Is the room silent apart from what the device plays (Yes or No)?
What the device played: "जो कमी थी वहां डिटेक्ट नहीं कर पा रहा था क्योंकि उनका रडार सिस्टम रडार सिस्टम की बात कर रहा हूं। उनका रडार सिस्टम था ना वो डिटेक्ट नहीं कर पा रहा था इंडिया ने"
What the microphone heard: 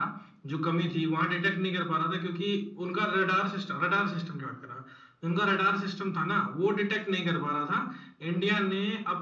Yes